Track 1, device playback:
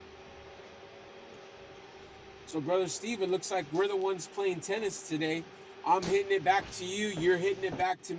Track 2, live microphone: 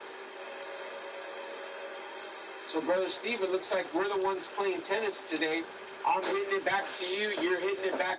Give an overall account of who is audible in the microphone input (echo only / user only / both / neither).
echo only